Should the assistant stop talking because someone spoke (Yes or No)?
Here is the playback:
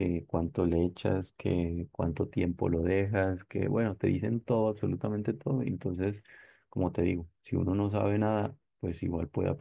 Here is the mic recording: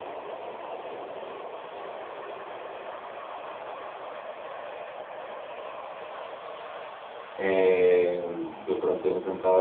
Yes